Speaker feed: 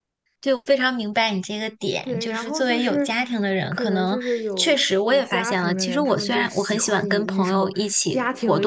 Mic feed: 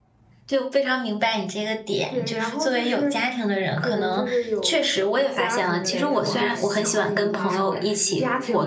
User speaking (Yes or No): Yes